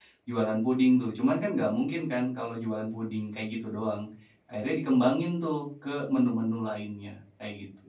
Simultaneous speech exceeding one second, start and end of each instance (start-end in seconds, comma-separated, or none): none